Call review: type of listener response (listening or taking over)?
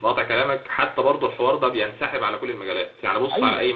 listening